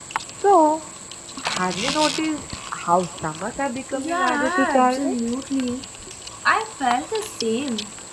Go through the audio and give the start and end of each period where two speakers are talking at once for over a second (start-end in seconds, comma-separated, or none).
3.9-5.2